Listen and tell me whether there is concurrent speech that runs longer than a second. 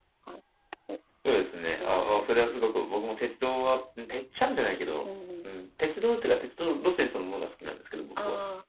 No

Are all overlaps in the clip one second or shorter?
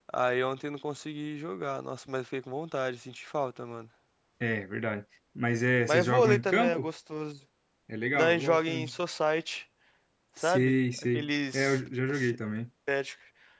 No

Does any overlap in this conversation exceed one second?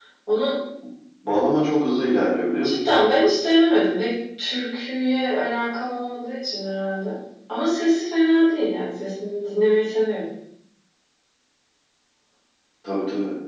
No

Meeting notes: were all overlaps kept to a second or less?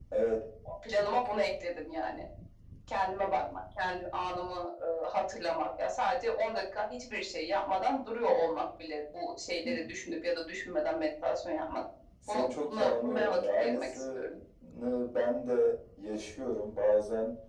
No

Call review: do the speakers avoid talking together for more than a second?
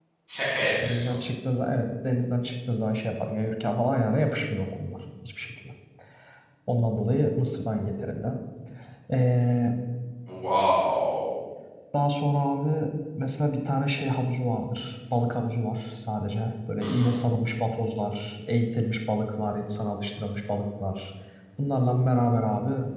Yes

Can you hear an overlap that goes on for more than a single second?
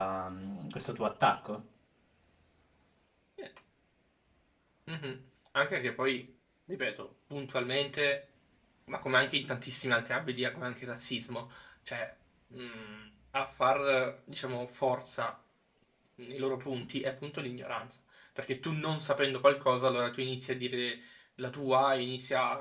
No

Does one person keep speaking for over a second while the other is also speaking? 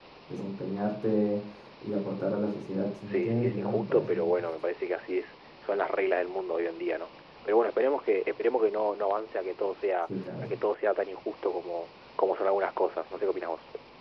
Yes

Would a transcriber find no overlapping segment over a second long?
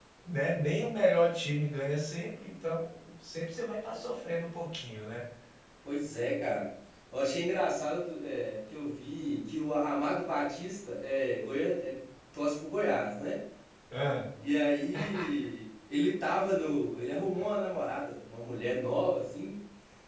Yes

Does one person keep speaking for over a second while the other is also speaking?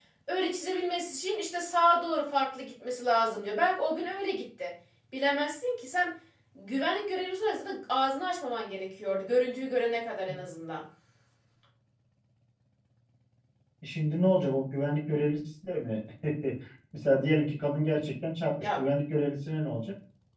No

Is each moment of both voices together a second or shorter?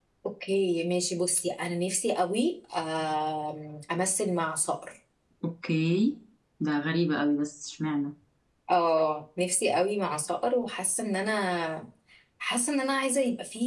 Yes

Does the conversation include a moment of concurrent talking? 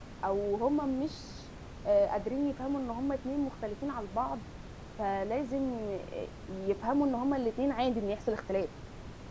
No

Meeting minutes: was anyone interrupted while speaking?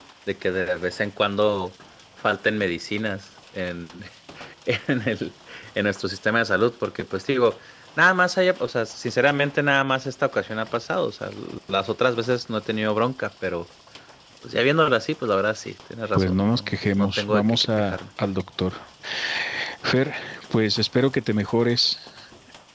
Yes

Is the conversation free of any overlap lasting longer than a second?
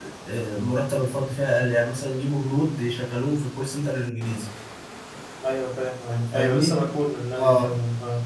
Yes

